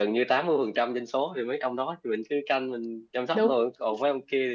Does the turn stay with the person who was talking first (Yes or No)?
Yes